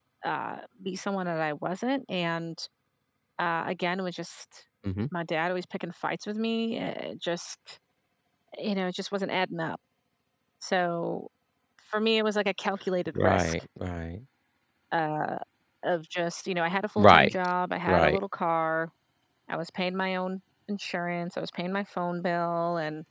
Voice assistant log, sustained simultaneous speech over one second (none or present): none